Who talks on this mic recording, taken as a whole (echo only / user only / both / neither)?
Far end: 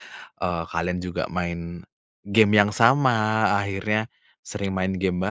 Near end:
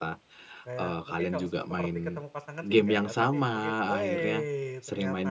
both